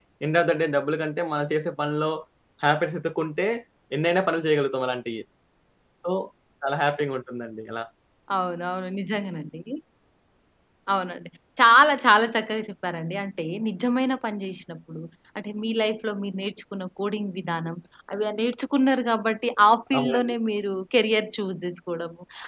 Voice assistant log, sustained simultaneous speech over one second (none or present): none